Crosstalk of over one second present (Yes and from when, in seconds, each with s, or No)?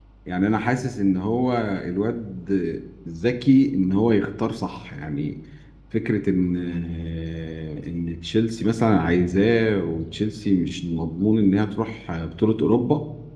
No